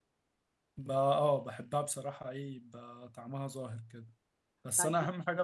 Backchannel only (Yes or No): Yes